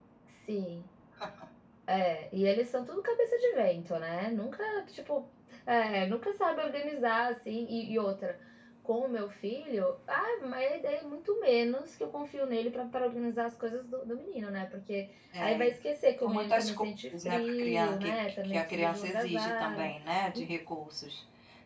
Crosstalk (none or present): present